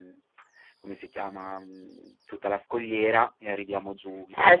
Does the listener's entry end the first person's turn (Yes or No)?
Yes